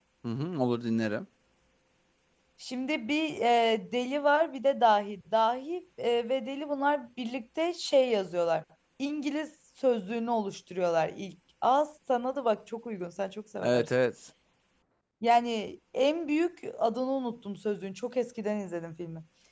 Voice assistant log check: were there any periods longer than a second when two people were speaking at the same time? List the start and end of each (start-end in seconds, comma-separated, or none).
none